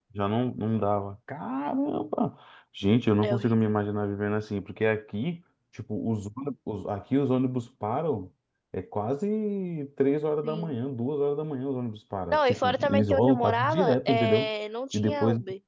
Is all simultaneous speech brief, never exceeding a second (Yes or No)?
No